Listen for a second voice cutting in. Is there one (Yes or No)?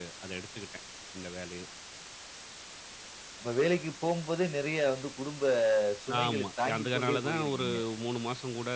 Yes